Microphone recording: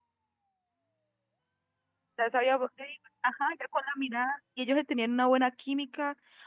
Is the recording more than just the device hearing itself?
Yes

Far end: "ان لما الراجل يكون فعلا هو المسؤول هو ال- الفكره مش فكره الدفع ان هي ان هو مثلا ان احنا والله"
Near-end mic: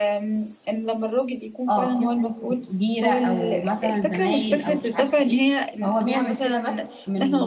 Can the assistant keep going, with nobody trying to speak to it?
No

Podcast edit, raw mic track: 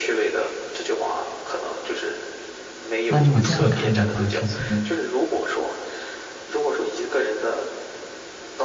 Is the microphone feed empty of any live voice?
No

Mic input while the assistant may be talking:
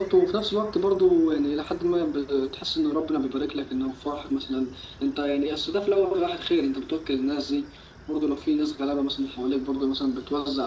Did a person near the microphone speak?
No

